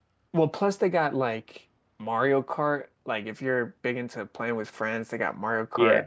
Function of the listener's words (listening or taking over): taking over